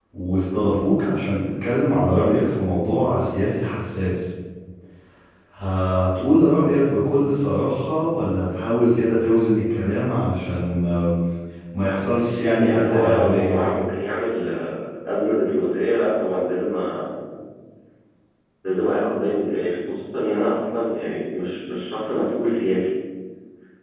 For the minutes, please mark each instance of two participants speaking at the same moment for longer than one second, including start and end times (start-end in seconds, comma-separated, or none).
12.6-13.8